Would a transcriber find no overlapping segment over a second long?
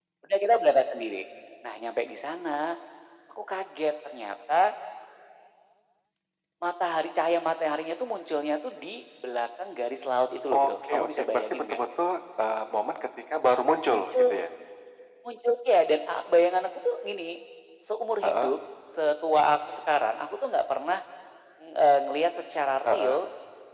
No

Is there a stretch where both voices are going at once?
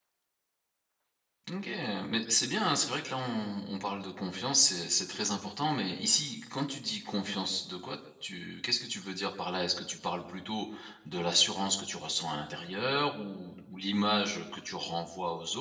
No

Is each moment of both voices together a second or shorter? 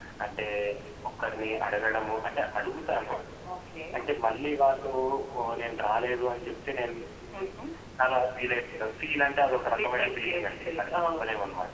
No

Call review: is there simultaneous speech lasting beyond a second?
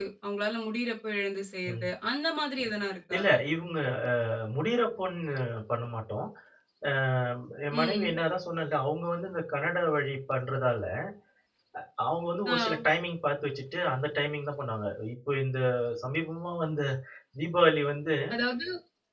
No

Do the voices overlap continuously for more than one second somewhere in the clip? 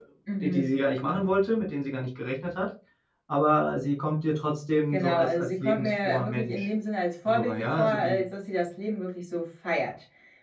Yes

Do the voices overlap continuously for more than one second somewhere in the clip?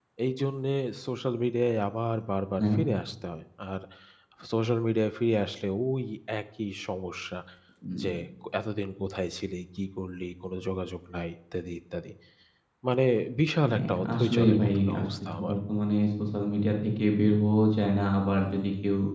Yes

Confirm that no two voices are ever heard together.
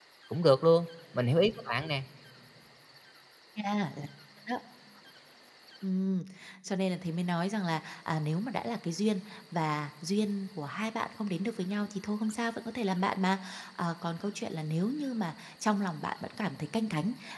Yes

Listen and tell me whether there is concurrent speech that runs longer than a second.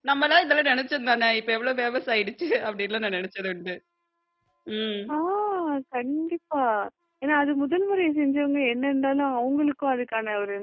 No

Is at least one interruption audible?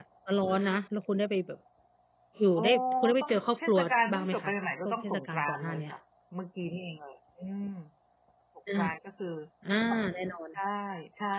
Yes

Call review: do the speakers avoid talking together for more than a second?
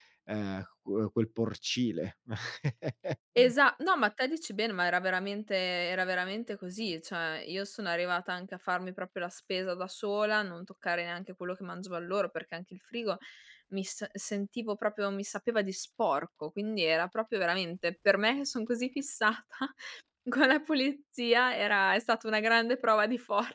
Yes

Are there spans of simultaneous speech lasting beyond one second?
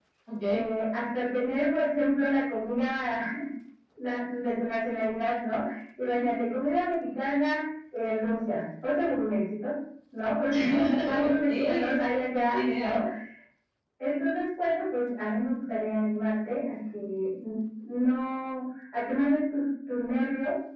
Yes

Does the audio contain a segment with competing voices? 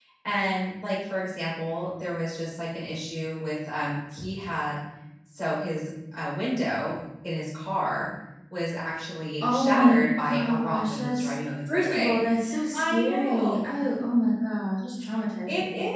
Yes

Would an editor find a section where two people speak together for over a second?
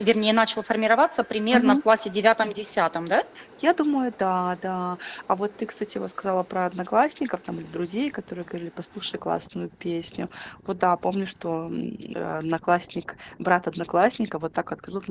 No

